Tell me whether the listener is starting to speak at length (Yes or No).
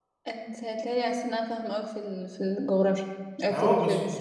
Yes